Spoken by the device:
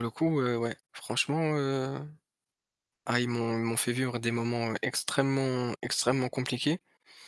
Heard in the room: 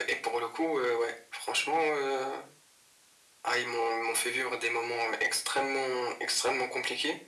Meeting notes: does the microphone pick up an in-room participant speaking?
No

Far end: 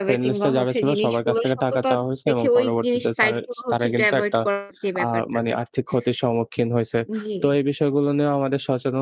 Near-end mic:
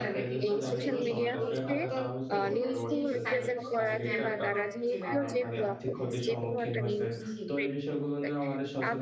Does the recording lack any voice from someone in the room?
No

